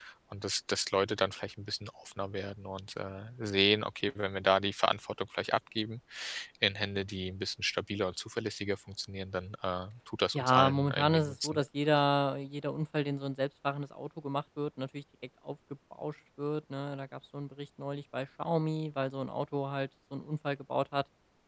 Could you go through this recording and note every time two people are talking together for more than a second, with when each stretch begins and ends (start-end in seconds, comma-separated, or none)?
10.3-11.6